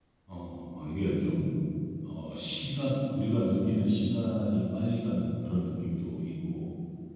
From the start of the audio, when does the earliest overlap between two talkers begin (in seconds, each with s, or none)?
none